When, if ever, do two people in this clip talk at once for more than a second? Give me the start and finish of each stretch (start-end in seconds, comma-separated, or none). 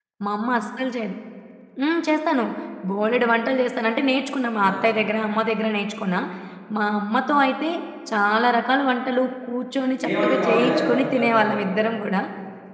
10.0-11.6